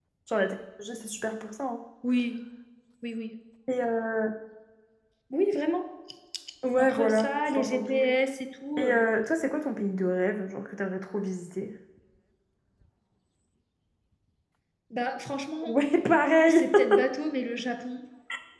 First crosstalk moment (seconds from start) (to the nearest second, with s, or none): 7 s